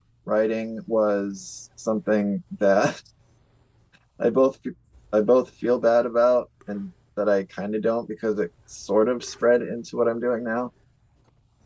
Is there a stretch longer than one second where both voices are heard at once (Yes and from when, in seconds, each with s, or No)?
No